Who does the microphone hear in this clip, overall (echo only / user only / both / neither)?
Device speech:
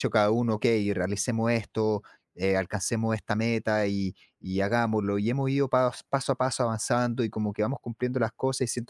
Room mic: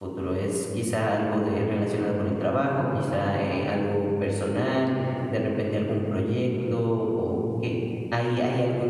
user only